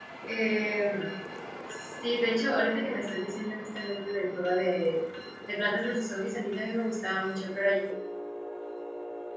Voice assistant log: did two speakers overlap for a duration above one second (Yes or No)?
No